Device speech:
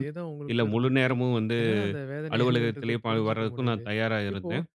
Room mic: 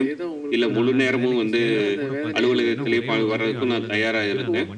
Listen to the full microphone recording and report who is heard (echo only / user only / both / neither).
both